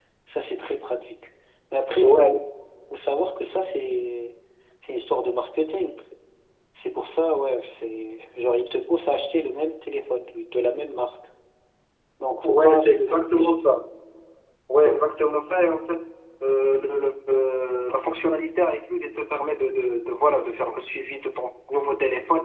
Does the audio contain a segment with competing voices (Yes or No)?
Yes